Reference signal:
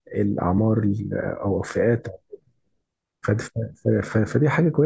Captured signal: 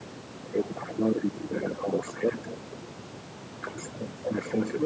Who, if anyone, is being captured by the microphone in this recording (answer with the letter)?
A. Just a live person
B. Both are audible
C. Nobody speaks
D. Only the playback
D